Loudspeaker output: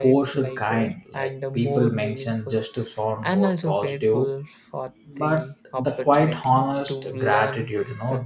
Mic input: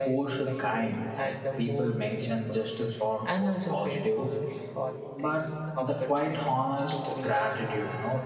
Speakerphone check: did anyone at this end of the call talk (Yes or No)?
No